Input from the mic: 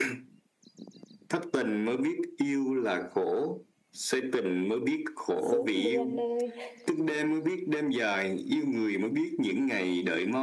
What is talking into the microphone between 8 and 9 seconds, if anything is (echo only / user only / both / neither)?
echo only